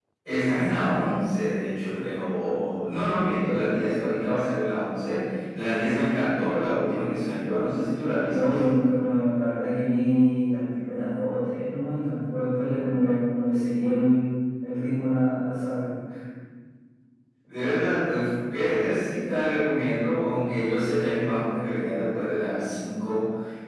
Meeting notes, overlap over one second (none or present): none